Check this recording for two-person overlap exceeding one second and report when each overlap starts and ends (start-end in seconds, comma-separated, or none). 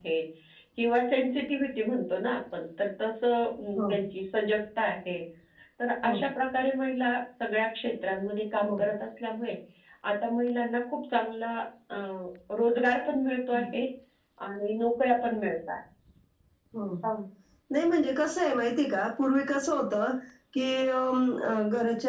none